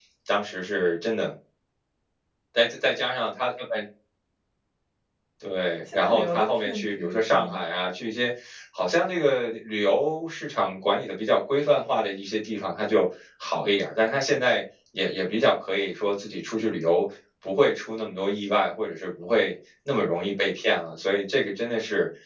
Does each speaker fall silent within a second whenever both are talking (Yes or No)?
No